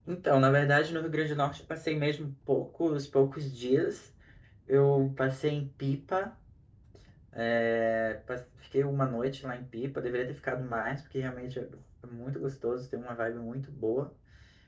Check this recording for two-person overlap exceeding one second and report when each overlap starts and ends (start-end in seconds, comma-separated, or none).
none